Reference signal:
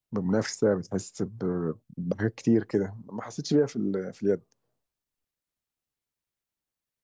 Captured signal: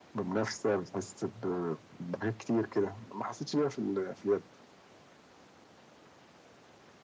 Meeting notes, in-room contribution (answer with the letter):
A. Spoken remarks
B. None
B